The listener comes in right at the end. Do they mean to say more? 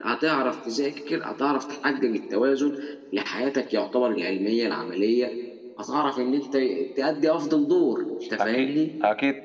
Yes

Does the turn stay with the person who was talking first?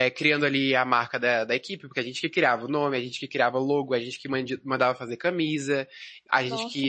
Yes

